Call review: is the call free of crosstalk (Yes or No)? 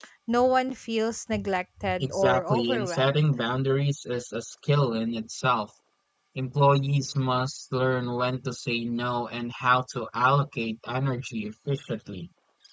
No